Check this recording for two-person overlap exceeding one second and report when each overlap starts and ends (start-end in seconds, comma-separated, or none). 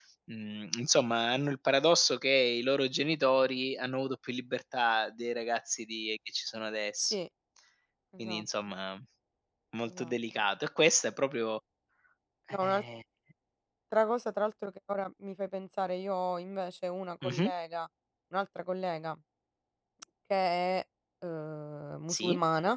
none